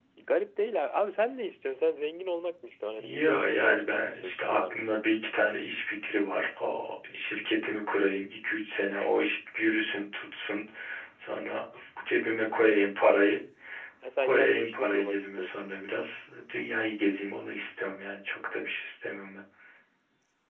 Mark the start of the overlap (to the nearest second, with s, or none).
3 s